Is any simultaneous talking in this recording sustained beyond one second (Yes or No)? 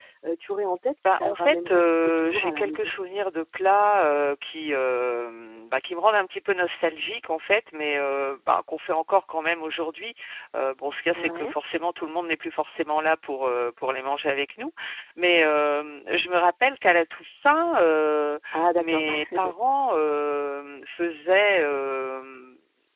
Yes